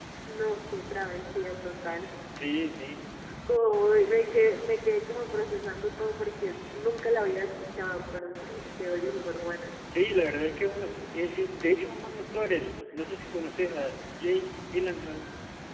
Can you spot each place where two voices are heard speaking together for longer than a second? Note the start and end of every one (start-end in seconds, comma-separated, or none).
none